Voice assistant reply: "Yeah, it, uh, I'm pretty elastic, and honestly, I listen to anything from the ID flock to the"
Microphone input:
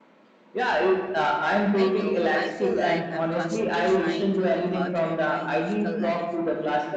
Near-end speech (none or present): present